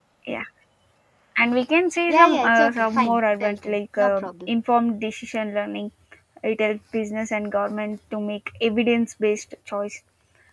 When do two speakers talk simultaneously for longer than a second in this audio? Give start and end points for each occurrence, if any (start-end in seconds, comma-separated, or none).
2.1-4.2